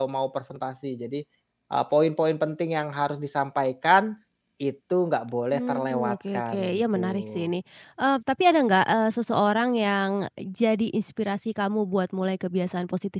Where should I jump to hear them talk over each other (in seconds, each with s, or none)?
5.5 s